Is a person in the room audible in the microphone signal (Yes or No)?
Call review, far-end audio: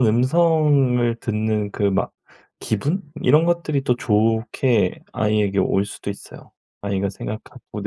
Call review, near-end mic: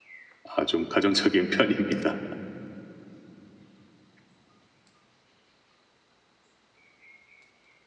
Yes